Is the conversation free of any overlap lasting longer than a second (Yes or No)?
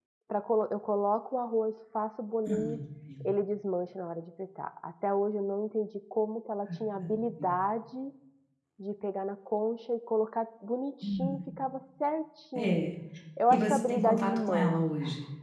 No